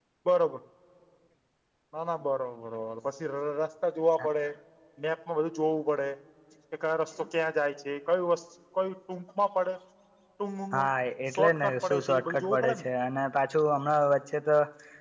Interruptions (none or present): present